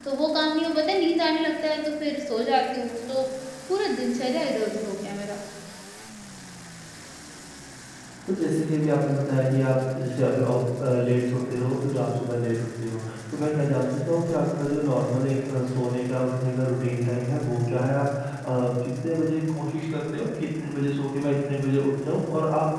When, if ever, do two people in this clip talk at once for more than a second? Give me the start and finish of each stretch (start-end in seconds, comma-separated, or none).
none